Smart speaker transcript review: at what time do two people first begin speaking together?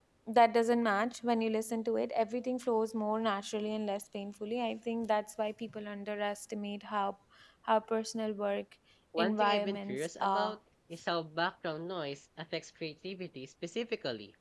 9 s

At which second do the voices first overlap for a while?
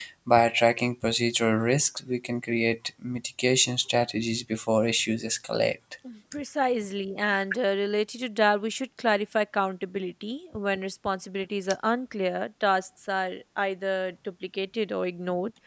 none

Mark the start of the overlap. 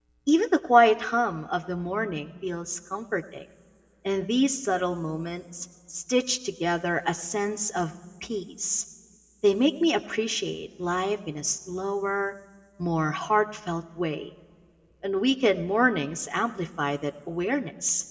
none

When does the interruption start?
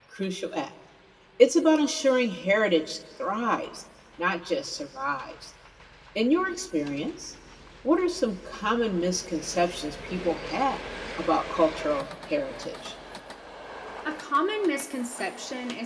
none

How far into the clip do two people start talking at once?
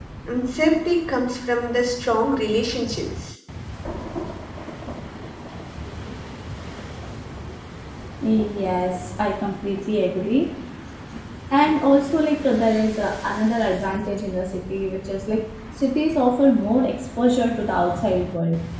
none

